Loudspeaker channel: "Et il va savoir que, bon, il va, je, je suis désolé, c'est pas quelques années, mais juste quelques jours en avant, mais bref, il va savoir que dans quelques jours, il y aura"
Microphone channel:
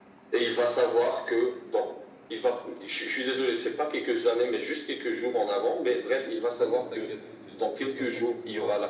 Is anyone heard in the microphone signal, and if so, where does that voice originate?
both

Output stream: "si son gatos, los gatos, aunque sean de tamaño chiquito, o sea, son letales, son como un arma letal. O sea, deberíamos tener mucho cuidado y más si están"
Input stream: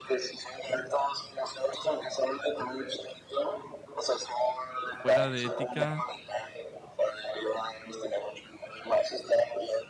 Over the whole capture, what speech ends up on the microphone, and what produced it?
both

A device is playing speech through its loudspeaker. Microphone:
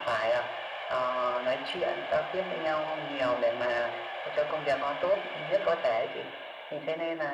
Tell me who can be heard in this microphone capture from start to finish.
echo only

